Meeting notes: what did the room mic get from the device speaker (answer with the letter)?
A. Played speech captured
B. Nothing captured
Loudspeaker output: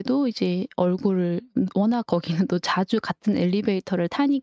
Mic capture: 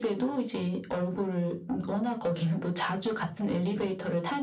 A